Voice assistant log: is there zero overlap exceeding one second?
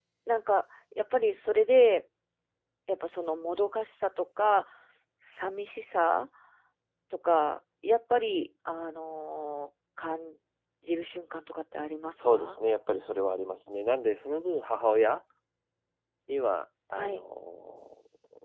Yes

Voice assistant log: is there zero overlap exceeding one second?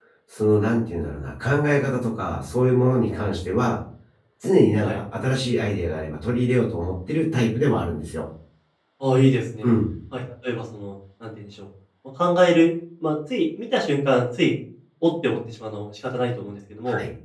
Yes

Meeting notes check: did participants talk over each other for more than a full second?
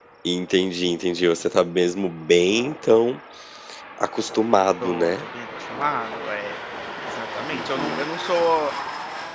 No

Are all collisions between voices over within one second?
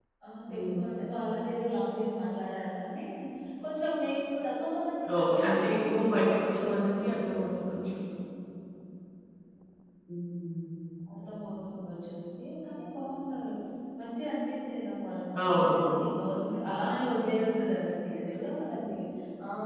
No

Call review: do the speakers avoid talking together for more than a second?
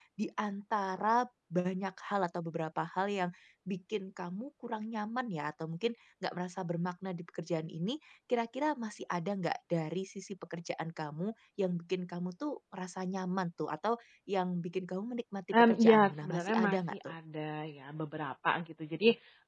No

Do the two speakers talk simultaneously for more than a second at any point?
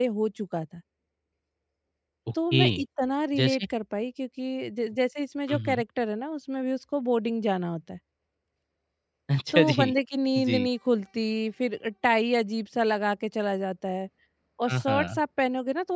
No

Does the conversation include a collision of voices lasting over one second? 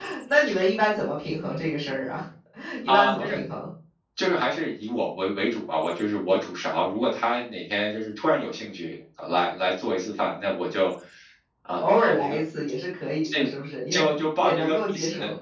Yes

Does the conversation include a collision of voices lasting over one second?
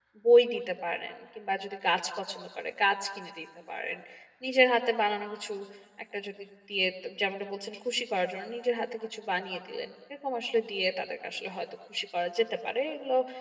No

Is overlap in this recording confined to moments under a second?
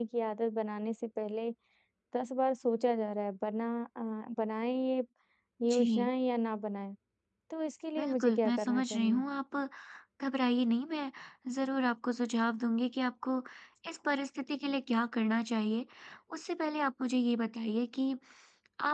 No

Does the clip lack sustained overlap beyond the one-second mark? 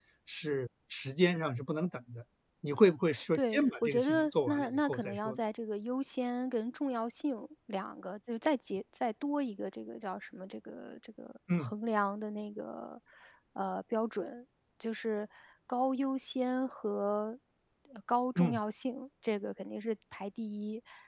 No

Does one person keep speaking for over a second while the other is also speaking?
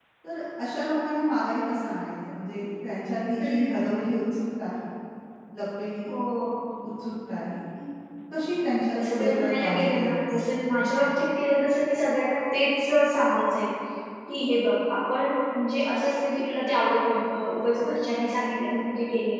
Yes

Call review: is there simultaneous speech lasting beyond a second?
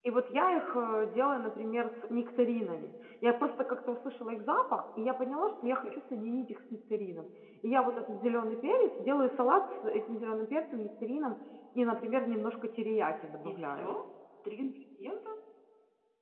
No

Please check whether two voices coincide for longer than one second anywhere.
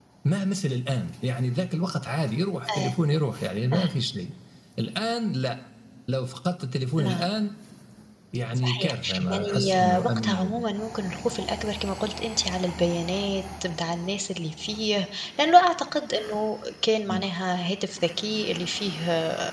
Yes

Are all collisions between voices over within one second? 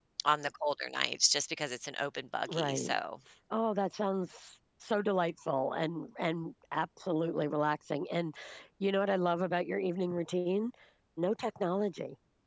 Yes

